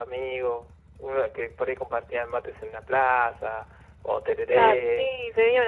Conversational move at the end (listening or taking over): taking over